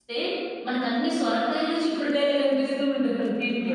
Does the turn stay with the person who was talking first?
No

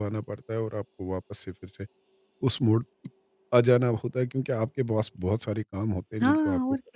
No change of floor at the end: No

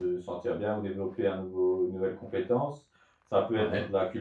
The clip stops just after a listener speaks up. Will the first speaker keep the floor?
Yes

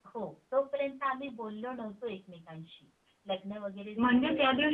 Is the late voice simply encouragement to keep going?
No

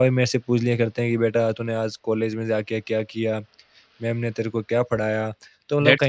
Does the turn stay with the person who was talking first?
No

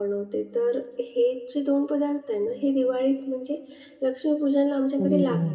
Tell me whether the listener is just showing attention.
Yes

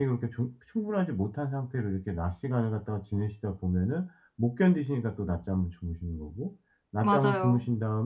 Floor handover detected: No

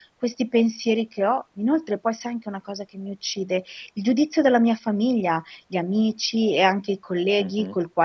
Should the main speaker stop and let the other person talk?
No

